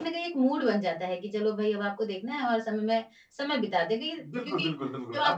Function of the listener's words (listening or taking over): taking over